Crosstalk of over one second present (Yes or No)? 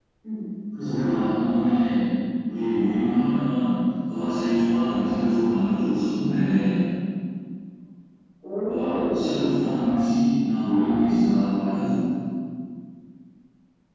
Yes